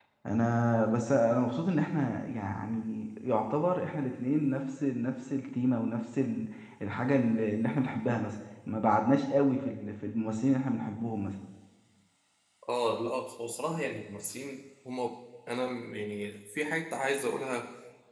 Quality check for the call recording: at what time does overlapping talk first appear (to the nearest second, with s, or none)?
none